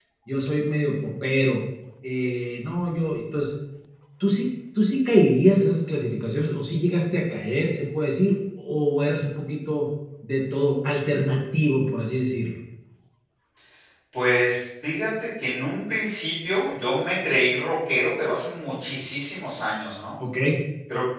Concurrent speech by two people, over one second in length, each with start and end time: none

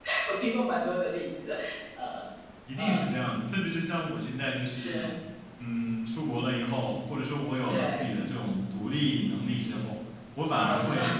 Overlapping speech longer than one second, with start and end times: none

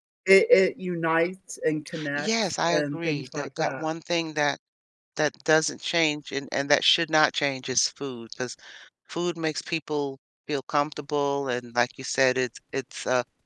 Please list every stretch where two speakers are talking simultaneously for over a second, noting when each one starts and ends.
2.2-3.8

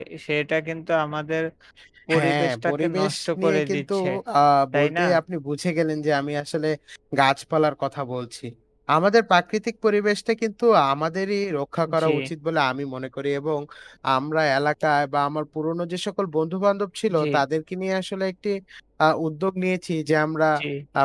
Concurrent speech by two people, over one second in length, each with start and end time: 2.1-4.0

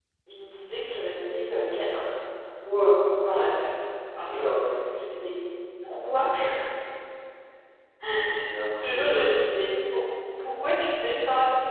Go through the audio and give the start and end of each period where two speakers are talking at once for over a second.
none

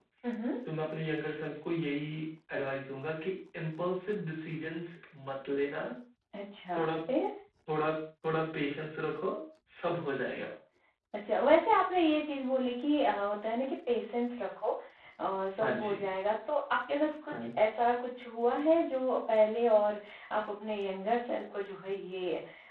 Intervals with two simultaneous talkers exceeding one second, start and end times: none

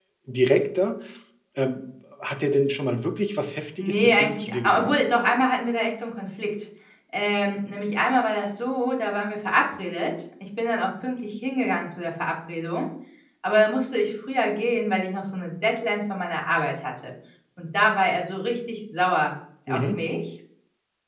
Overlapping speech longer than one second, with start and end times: 3.8-5.0

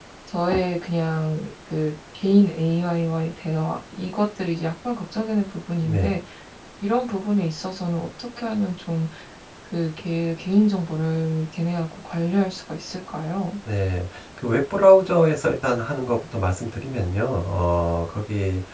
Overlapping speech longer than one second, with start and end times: none

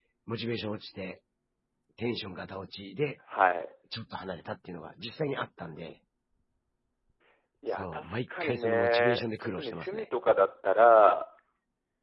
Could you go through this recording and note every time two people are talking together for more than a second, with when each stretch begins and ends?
7.7-10.0

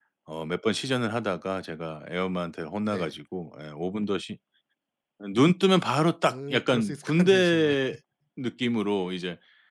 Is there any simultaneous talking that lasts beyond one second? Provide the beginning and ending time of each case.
6.3-7.8

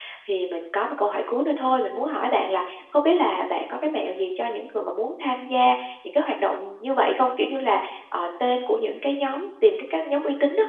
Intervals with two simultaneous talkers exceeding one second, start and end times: none

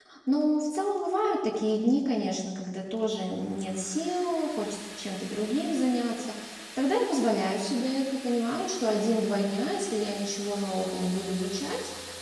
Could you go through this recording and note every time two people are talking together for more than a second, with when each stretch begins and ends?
none

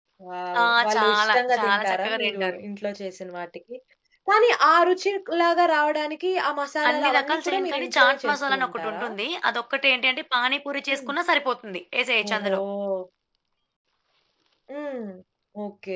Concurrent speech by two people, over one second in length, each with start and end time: 0.6-2.6, 6.9-9.1

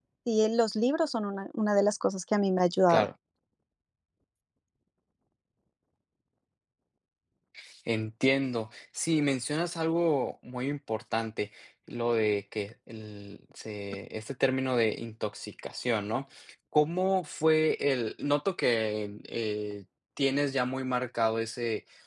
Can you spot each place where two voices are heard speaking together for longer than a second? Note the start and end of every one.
none

